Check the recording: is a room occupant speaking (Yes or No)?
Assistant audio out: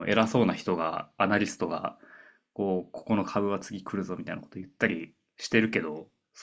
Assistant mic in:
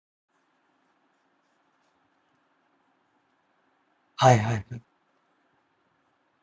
Yes